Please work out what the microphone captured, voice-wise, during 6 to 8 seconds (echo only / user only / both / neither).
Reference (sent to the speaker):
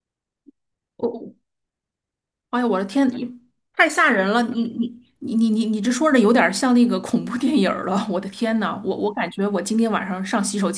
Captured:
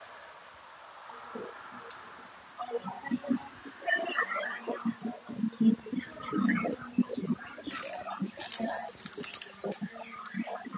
echo only